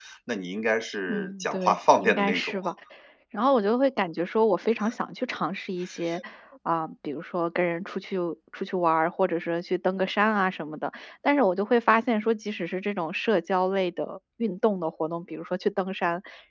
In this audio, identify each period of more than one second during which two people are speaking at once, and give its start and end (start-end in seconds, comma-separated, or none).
1.1-2.6